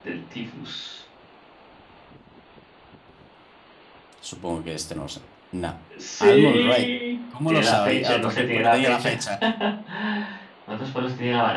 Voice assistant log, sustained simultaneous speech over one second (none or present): present